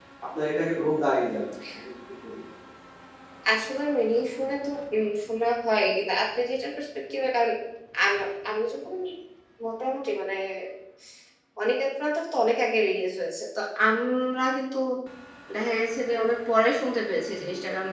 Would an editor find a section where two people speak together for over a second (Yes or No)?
No